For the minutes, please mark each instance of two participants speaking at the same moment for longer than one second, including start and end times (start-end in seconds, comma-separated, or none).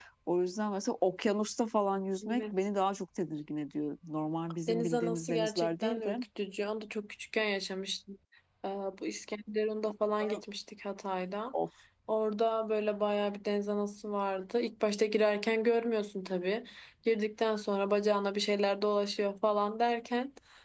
4.7-6.2